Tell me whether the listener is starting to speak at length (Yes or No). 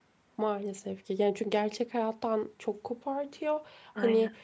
No